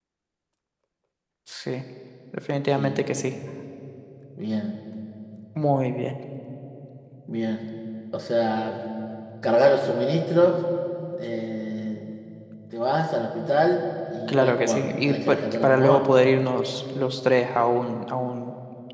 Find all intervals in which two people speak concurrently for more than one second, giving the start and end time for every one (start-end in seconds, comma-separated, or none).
14.3-16.0